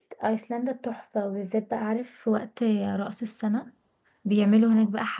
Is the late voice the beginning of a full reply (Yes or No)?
No